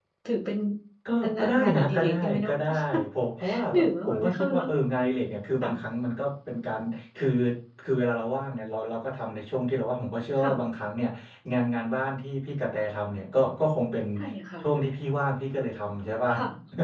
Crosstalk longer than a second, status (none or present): present